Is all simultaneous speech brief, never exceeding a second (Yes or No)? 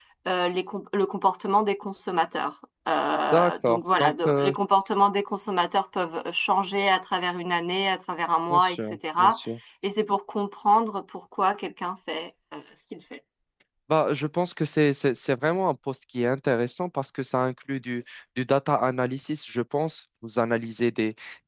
No